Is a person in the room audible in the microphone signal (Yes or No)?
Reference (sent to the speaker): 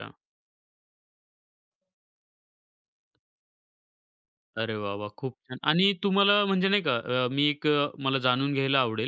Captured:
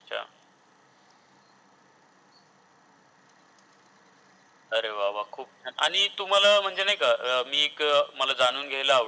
No